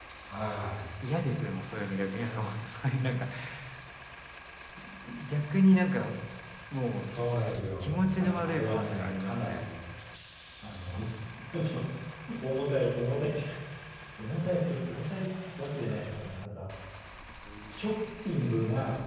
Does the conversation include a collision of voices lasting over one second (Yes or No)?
Yes